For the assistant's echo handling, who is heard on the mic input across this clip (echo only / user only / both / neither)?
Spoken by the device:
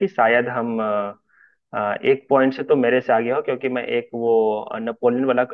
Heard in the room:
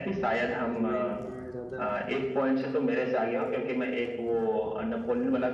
both